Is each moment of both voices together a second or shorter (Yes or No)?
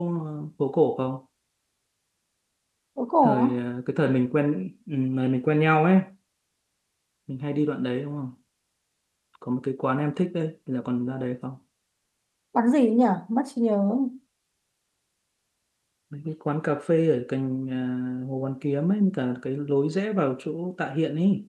Yes